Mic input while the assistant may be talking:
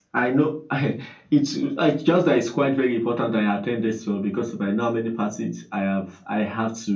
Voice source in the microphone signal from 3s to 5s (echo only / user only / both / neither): echo only